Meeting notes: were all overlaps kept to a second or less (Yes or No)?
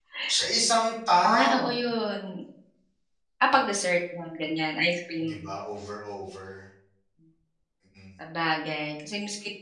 Yes